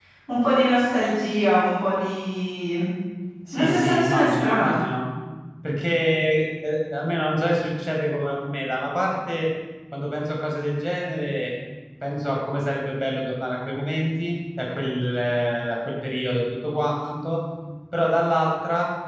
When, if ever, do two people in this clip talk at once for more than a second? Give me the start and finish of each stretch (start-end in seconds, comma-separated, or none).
3.5-4.8